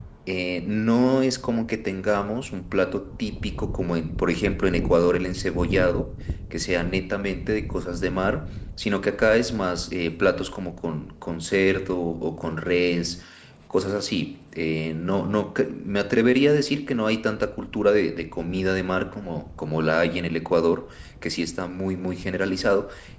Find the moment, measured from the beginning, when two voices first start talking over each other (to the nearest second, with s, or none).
none